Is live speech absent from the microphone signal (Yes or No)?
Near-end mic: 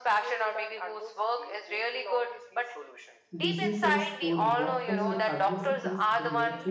No